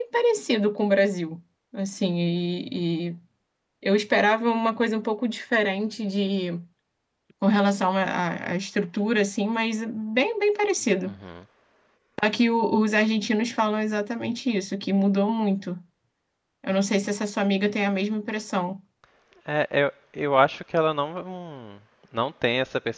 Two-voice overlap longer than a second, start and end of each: none

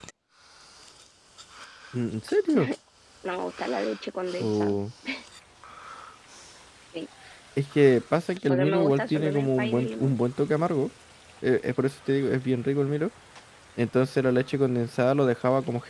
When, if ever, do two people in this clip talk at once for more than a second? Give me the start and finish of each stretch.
8.5-10.2

